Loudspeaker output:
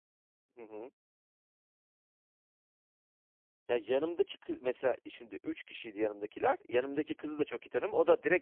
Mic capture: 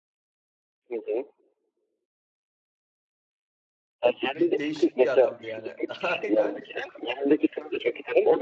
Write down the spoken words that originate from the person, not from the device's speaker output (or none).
bir değişik bir adamdı, yani. Aynen.